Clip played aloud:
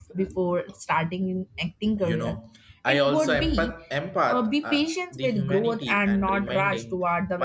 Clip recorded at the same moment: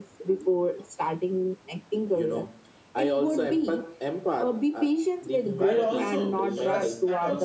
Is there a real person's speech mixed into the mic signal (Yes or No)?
Yes